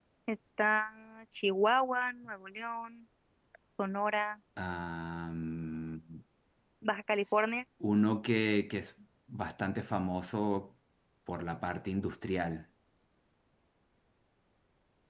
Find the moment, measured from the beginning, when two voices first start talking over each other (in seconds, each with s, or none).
none